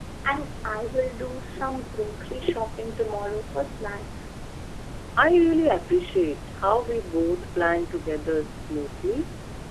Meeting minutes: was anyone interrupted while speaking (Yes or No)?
No